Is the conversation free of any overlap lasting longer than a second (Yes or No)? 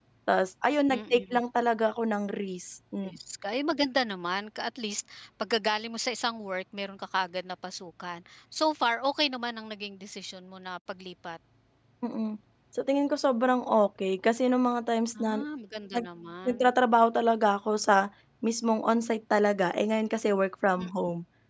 Yes